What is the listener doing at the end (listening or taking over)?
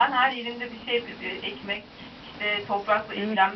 listening